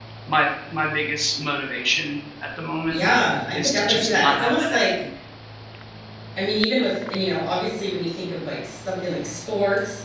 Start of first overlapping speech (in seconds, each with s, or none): 3.5 s